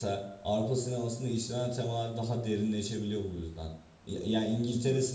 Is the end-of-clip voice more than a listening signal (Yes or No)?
No